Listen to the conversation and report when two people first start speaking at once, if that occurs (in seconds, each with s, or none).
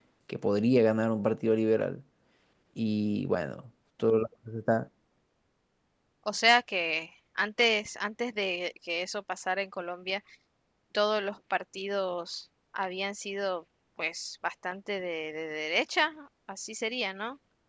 none